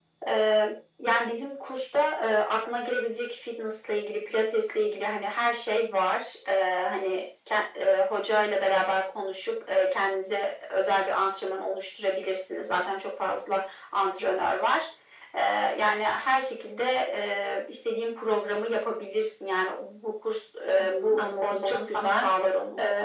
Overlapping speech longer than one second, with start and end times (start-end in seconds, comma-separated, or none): 20.8-22.2